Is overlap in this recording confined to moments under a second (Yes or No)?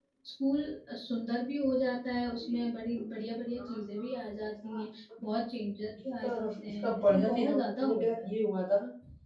No